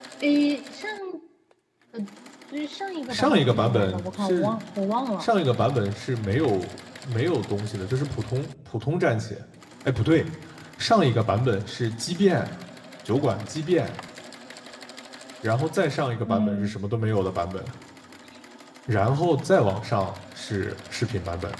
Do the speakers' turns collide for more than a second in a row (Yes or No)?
Yes